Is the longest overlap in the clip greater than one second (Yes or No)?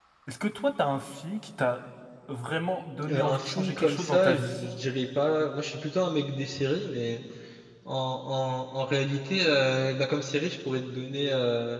Yes